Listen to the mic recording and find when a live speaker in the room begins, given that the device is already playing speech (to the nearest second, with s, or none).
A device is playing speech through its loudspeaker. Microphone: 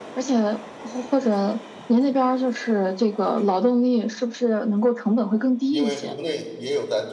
6 s